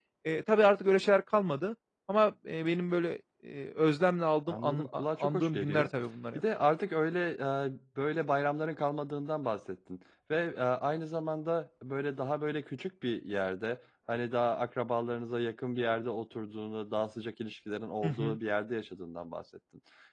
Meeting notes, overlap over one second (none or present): present